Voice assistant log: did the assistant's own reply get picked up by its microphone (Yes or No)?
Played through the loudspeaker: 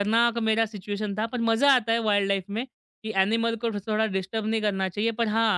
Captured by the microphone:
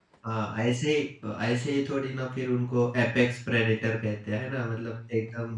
No